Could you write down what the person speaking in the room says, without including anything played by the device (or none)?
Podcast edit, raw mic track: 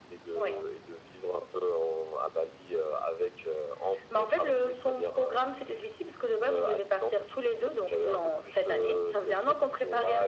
none